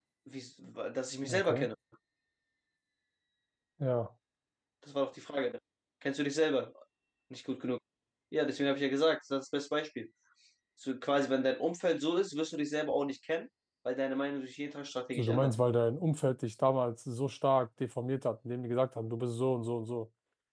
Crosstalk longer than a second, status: none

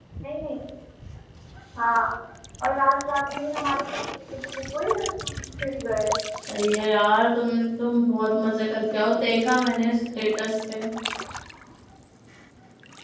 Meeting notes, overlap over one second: none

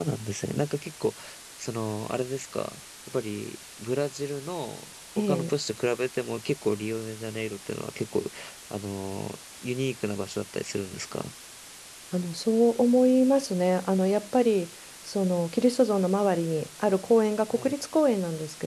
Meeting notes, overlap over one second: none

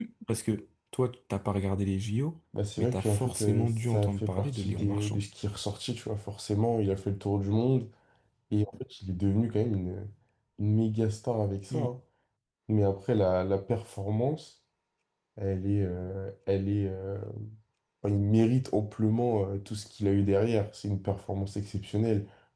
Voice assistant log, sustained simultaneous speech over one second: present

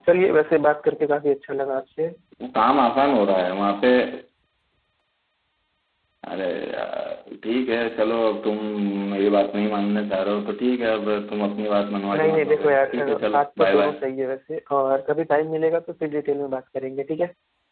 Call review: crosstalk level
present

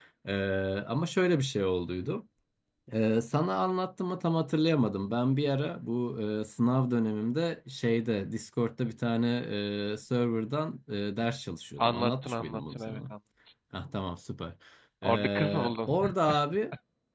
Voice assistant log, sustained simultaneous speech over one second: present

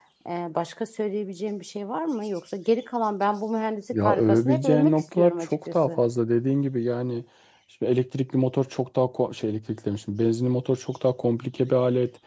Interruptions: present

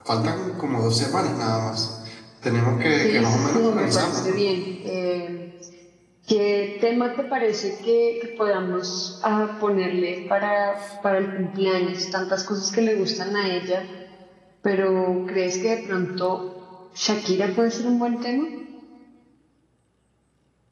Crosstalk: present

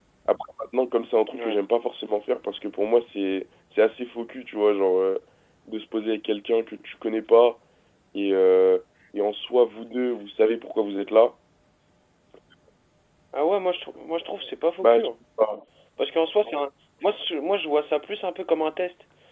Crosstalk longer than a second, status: none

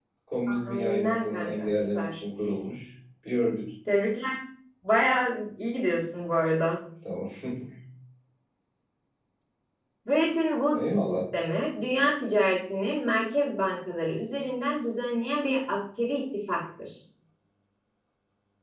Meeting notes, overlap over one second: present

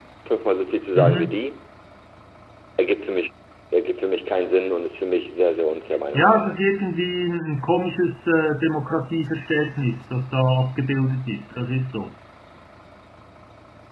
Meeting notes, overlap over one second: none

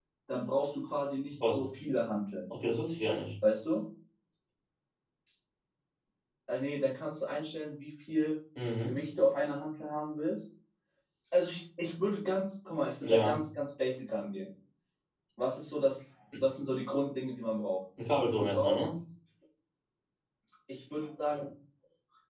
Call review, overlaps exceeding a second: none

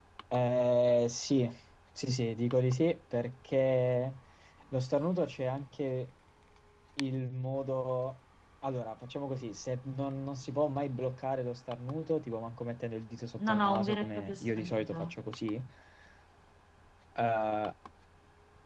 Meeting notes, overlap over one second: present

